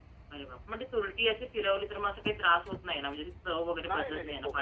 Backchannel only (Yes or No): No